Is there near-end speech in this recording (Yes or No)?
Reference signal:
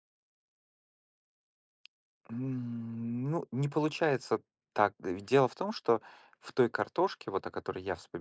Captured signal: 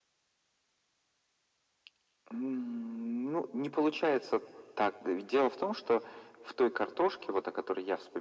No